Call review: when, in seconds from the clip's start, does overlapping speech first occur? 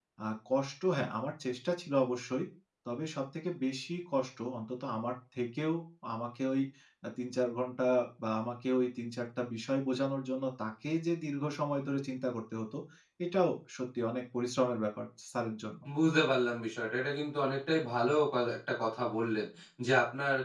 none

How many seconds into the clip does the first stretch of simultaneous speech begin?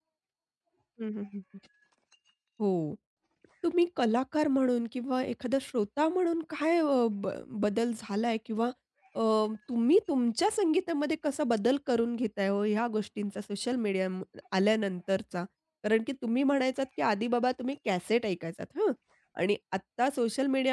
none

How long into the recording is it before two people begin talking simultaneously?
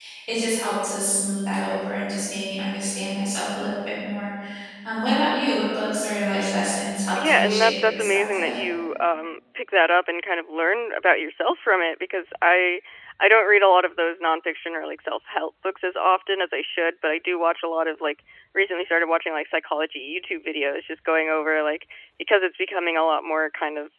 7 s

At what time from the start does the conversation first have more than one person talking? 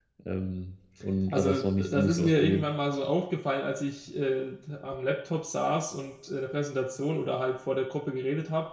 1 s

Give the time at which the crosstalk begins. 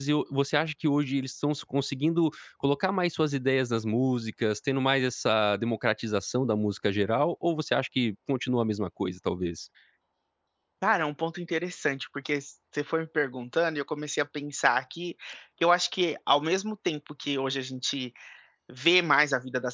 none

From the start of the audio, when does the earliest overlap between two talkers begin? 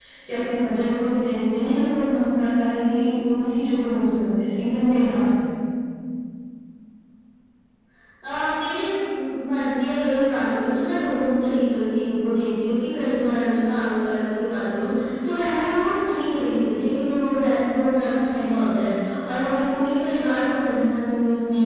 none

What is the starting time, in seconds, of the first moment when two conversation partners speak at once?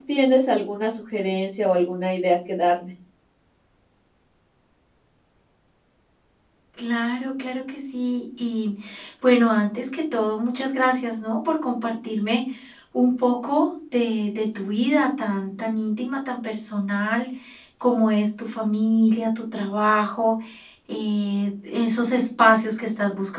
none

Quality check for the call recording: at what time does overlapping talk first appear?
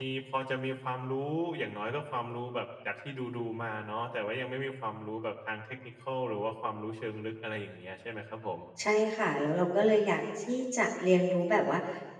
none

